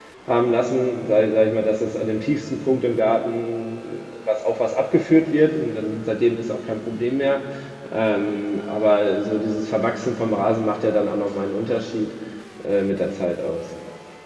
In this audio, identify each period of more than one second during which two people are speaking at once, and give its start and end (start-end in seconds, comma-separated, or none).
none